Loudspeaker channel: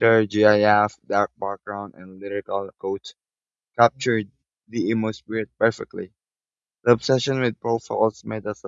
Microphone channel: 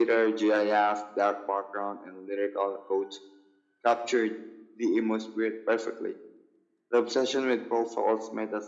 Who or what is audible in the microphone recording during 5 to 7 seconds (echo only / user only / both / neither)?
echo only